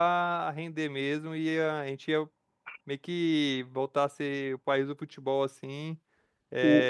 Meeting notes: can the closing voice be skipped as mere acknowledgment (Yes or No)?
Yes